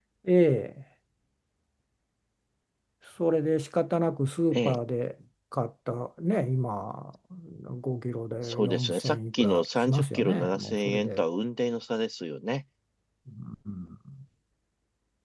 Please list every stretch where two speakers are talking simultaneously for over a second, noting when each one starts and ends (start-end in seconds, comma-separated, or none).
8.4-11.2